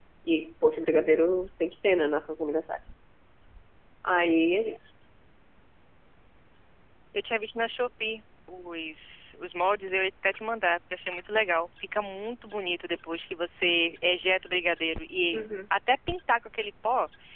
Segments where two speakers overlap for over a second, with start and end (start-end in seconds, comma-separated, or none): none